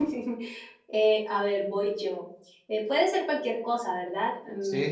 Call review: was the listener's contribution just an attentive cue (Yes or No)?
No